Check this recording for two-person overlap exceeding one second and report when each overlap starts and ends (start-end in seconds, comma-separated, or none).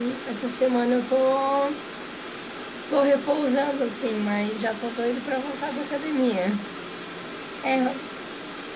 none